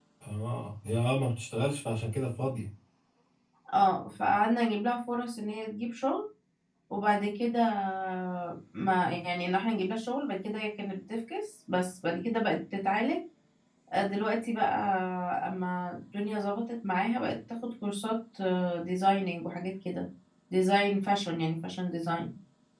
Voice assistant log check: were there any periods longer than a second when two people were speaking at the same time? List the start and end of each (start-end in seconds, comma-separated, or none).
none